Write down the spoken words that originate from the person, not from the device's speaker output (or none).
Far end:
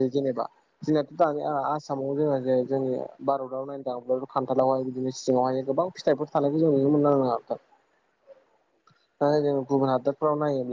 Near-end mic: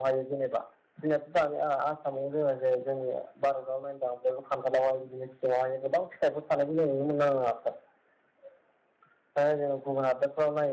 none